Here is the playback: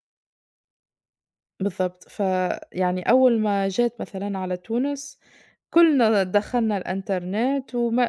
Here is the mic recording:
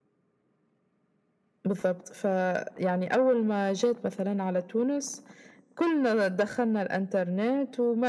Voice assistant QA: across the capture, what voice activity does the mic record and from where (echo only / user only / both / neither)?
echo only